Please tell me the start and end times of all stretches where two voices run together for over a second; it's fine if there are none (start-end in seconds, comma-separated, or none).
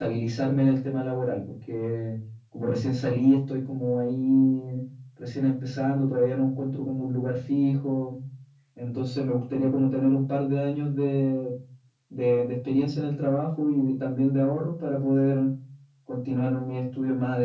none